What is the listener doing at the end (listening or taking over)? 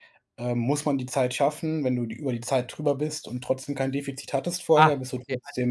taking over